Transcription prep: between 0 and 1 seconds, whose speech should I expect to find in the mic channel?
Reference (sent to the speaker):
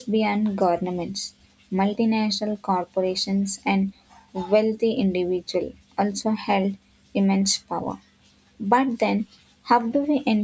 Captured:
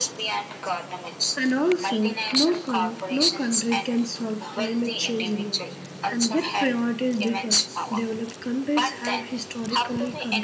echo only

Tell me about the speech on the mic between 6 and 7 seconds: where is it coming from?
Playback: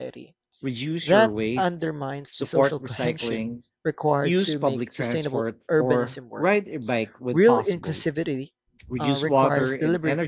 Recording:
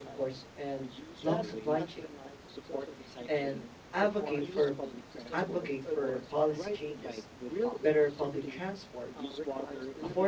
both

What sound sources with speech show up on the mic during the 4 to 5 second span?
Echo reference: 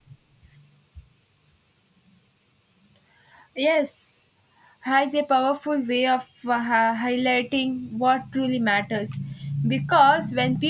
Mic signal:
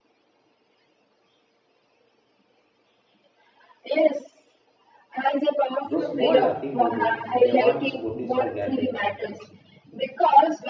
echo only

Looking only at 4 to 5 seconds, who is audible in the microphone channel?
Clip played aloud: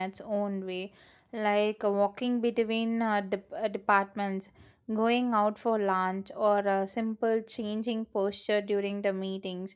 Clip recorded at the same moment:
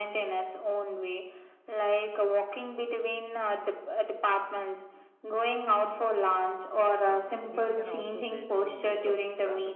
echo only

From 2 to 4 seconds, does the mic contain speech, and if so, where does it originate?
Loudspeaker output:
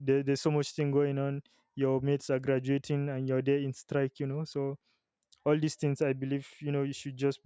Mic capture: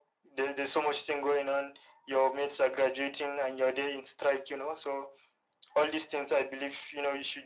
echo only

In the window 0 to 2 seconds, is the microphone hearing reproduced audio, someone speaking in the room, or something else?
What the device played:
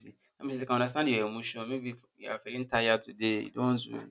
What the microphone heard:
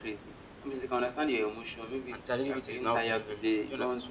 echo only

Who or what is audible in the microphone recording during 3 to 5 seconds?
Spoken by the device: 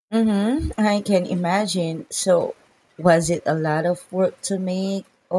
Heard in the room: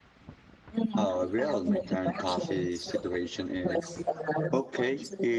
both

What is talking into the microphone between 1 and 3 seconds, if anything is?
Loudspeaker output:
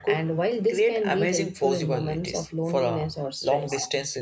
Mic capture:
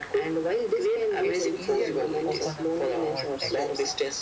both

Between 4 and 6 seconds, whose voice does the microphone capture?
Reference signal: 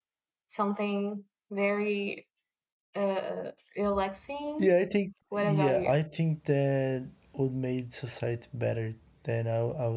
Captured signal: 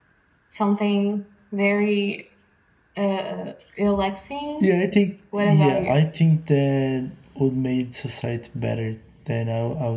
echo only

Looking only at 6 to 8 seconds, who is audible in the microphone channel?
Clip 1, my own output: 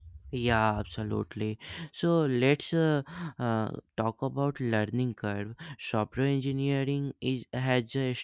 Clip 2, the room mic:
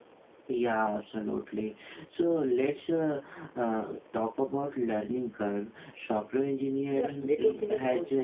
both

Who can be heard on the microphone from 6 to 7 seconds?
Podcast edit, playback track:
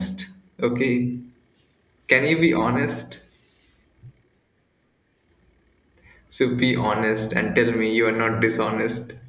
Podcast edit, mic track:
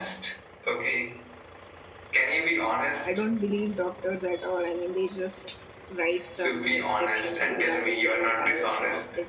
both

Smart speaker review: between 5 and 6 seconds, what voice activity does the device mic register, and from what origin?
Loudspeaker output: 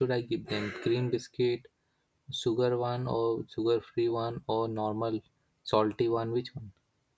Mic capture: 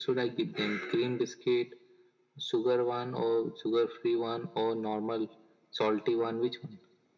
echo only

